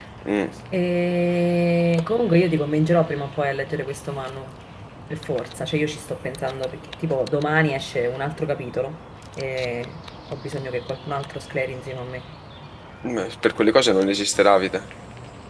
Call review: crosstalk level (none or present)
none